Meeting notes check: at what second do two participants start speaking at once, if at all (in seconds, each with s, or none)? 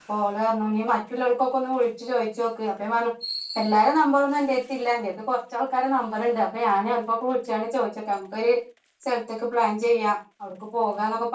none